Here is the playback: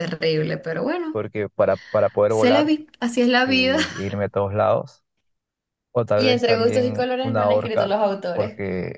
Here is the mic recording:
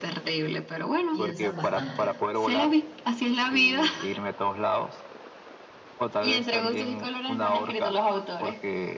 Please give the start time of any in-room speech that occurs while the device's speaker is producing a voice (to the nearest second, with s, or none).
1 s